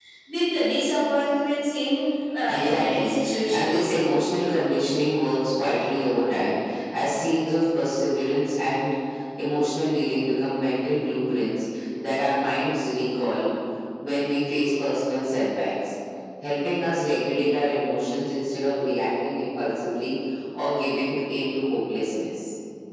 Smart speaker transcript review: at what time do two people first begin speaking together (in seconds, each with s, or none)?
2.5 s